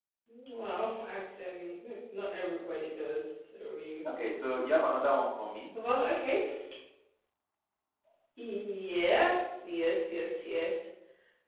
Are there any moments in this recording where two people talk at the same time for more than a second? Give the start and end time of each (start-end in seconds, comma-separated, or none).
none